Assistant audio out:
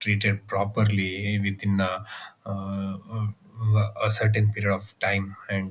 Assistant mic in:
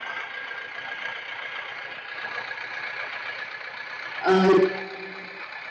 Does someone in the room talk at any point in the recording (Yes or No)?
Yes